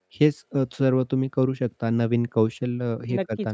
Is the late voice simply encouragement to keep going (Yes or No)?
No